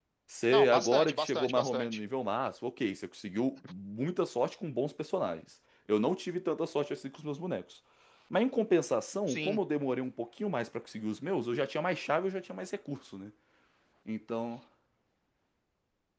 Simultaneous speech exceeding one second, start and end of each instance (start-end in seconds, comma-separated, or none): 0.5-2.0